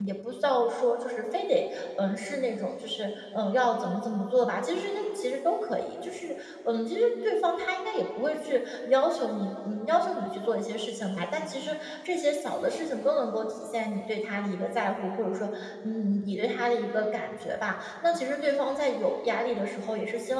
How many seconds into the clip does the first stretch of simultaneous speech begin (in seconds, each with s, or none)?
none